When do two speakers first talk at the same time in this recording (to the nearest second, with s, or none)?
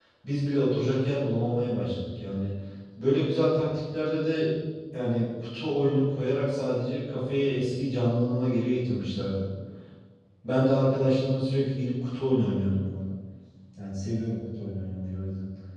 none